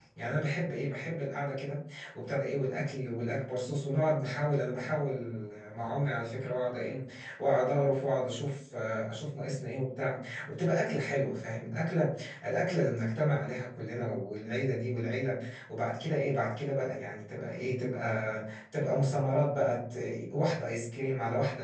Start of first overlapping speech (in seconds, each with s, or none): none